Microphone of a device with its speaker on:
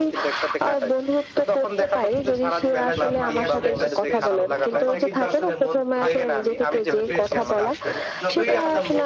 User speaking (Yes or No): Yes